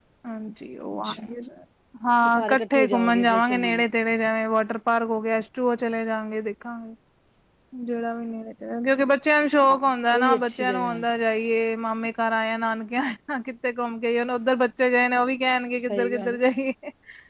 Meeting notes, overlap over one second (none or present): present